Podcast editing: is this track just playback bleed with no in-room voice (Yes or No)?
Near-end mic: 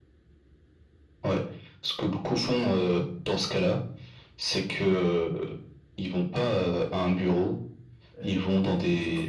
No